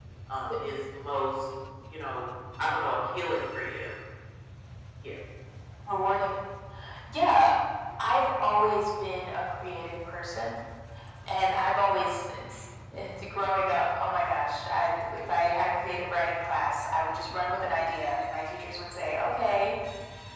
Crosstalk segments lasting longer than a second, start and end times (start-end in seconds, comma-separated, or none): none